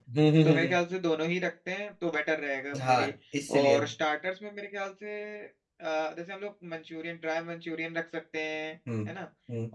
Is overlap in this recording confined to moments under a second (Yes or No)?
Yes